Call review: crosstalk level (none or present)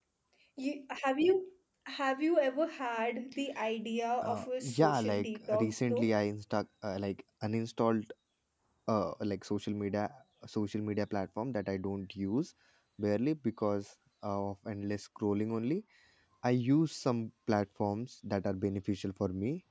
present